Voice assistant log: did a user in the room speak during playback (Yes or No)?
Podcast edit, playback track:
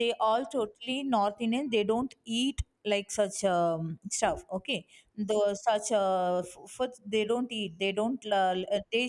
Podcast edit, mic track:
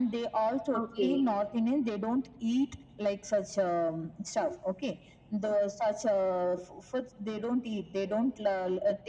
Yes